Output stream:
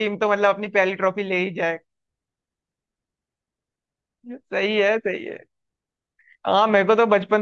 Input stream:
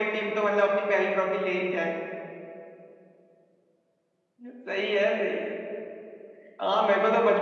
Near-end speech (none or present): none